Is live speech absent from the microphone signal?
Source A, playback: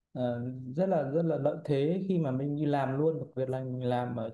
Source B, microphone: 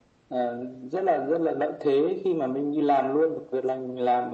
Yes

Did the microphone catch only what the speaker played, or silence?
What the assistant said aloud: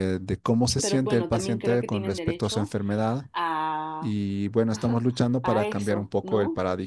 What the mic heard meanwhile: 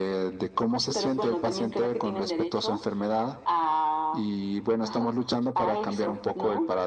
Yes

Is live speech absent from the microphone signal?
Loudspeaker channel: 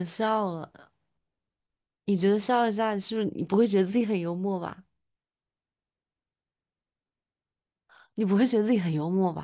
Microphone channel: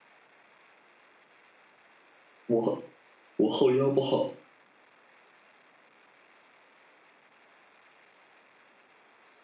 No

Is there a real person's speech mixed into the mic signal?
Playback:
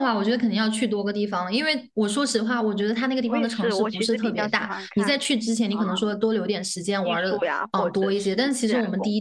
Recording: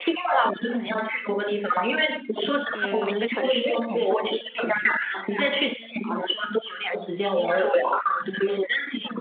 Yes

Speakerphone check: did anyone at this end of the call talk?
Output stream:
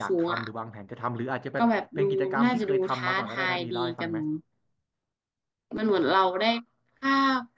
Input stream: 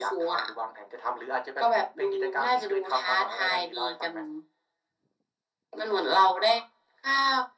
No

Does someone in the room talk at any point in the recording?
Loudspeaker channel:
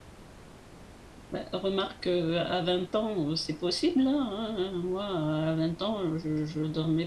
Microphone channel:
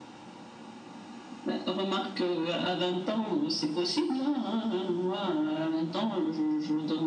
No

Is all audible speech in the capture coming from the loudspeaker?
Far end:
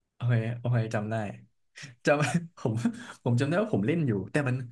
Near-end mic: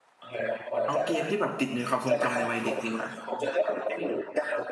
No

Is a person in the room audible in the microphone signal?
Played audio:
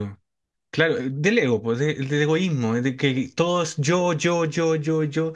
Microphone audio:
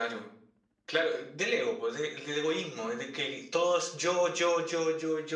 No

